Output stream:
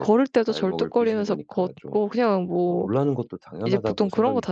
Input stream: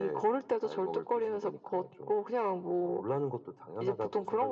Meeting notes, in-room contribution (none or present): none